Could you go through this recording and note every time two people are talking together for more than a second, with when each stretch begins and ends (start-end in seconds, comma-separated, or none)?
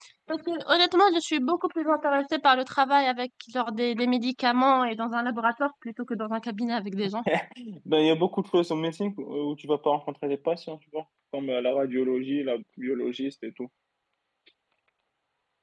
none